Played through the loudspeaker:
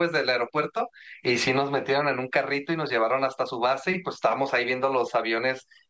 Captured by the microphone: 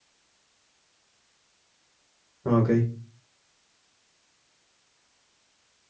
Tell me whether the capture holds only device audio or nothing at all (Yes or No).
No